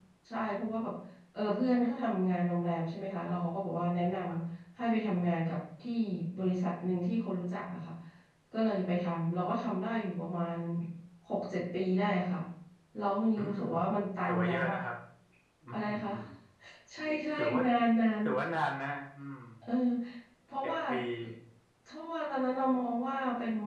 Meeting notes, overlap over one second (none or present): none